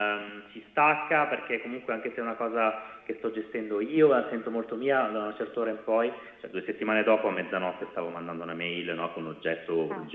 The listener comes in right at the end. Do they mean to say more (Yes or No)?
No